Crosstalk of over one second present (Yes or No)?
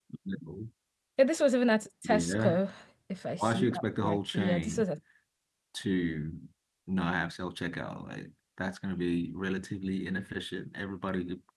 Yes